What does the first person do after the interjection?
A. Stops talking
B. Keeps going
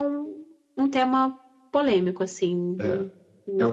A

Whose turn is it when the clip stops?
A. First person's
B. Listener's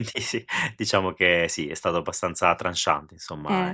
B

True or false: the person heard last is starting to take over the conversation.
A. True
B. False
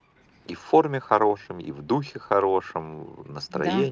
A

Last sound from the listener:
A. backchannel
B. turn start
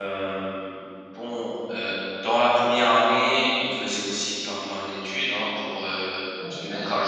A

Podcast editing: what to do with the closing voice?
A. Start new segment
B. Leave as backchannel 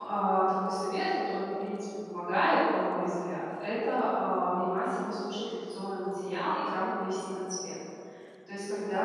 B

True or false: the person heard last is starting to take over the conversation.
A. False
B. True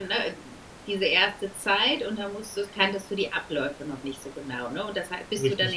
A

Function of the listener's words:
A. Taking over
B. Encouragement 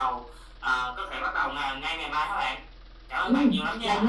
A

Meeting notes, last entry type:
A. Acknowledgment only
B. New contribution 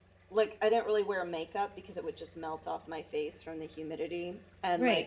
B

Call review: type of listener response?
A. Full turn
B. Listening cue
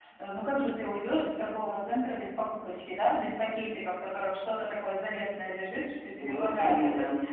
B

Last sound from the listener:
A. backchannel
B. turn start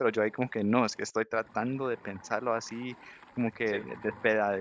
A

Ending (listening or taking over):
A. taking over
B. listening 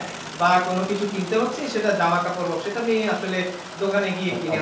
B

